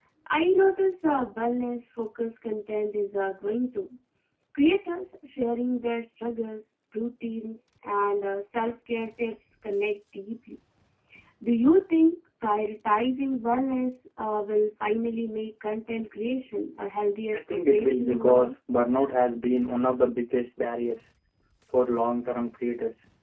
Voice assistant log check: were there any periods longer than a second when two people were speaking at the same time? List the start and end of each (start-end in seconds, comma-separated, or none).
17.4-18.6